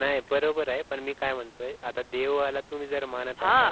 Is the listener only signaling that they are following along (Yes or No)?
No